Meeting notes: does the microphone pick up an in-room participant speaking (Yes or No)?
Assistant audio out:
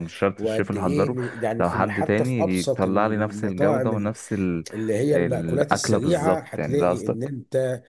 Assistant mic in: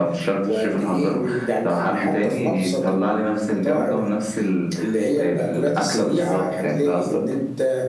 No